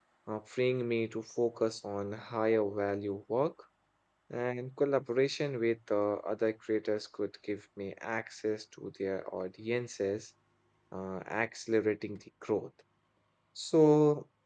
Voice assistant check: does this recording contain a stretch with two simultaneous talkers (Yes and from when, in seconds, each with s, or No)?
No